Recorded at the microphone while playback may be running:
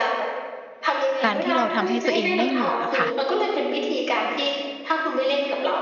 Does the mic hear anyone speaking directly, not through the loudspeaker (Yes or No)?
Yes